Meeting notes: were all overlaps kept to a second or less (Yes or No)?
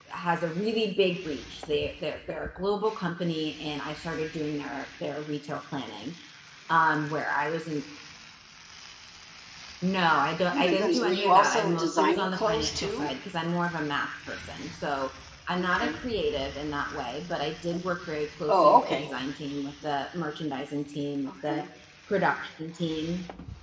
No